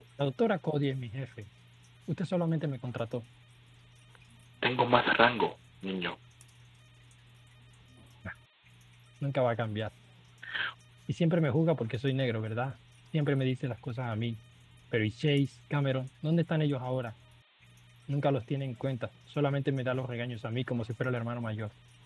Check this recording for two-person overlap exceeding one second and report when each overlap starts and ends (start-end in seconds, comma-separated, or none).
none